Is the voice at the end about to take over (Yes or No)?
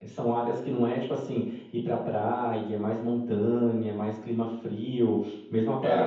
No